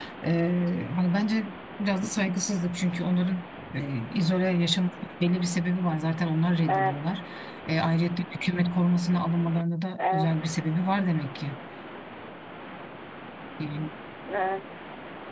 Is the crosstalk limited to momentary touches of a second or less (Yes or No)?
Yes